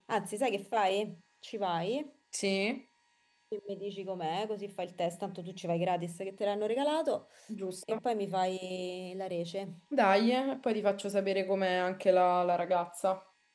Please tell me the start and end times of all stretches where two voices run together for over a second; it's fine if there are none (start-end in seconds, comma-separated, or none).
none